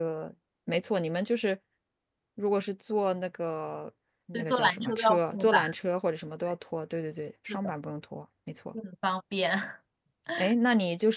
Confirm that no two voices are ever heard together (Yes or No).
No